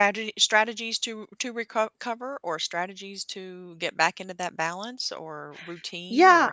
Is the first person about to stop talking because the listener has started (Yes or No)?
Yes